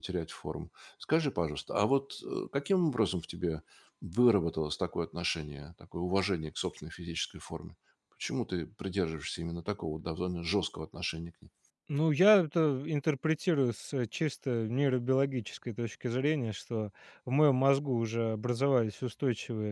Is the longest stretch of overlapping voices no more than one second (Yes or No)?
Yes